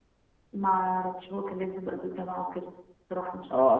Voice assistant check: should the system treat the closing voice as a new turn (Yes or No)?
Yes